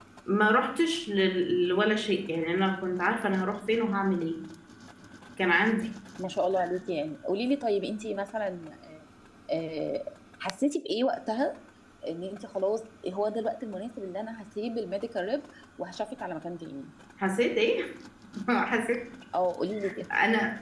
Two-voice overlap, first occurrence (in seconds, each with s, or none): none